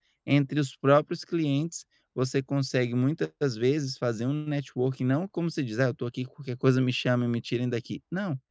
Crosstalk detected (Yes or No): No